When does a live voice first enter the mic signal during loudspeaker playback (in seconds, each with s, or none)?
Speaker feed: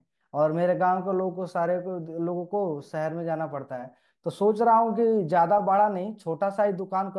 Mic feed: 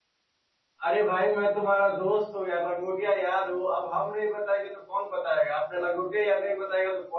0.8 s